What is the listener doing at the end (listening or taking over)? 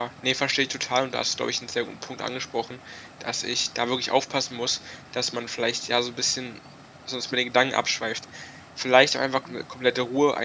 listening